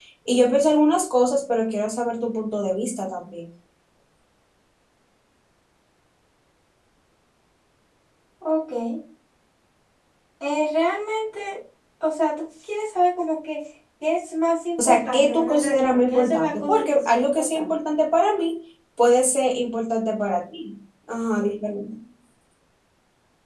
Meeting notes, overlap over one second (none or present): present